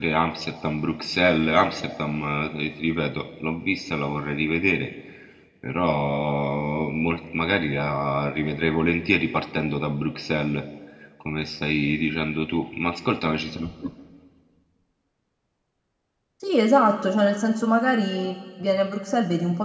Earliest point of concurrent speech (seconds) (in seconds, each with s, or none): none